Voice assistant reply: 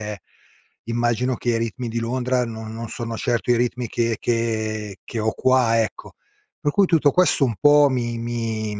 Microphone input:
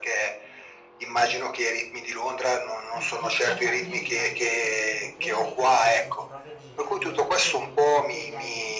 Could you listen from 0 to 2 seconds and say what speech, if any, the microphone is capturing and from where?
echo only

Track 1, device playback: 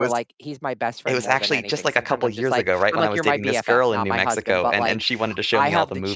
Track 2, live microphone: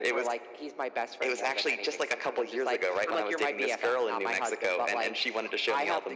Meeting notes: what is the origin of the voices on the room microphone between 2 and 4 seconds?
echo only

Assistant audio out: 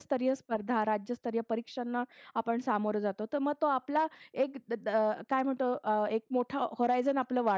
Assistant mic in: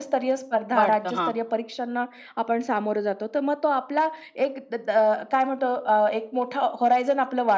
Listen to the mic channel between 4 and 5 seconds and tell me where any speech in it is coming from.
echo only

